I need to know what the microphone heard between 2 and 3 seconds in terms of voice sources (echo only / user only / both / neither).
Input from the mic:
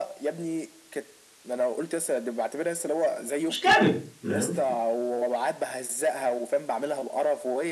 echo only